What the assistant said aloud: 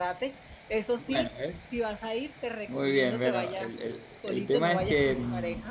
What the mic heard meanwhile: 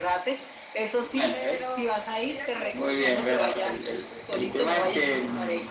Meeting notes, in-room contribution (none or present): present